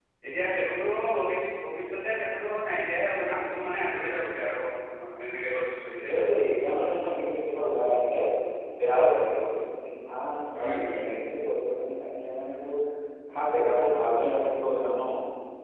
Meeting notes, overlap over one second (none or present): none